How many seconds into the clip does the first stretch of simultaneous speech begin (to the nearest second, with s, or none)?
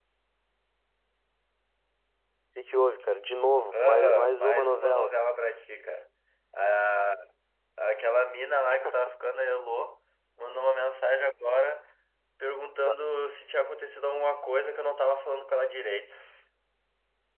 4 s